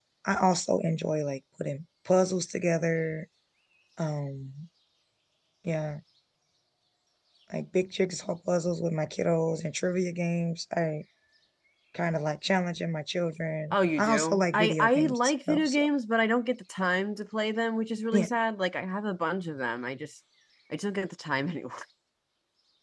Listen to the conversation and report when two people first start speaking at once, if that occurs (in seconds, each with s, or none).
13.7 s